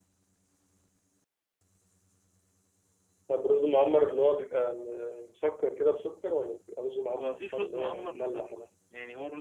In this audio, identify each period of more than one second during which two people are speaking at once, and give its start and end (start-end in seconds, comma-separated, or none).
7.1-8.4